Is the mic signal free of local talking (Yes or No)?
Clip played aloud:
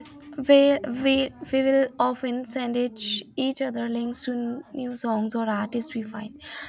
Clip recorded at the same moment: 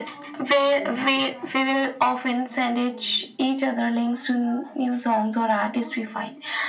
Yes